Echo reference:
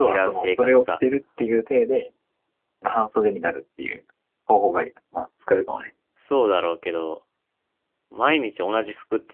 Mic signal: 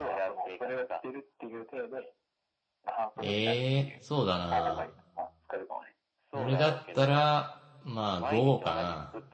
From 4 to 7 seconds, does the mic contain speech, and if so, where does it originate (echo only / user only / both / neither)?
both